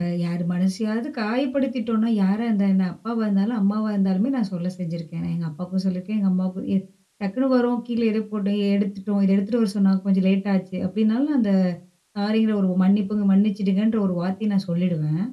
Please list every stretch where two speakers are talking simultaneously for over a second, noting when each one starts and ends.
none

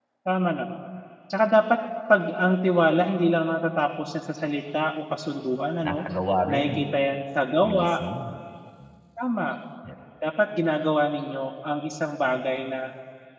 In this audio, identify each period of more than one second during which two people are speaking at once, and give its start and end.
none

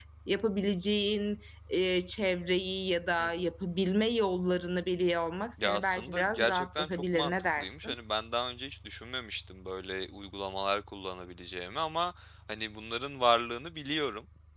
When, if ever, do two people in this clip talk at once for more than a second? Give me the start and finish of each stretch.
5.6-8.0

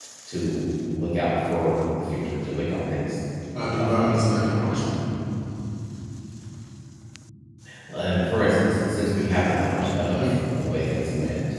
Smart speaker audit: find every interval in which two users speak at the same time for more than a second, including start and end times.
3.6-4.8

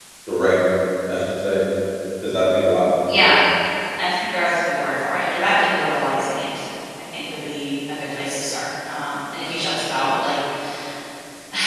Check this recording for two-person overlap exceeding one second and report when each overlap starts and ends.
none

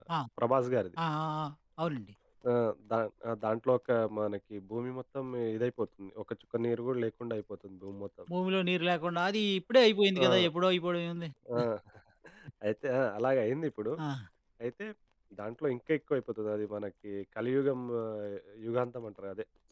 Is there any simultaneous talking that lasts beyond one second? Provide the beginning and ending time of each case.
none

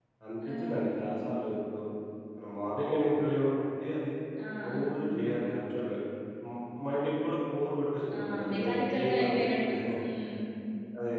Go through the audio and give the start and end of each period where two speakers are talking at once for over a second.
8.2-9.8

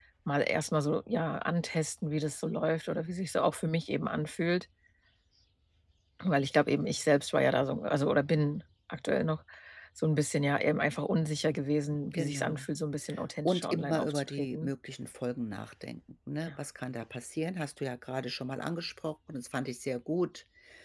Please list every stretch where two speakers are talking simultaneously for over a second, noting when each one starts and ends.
13.4-14.7

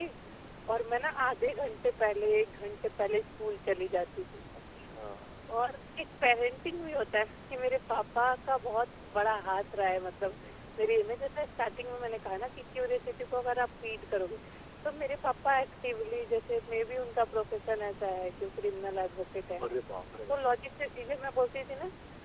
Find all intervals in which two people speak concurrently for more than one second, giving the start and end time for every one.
none

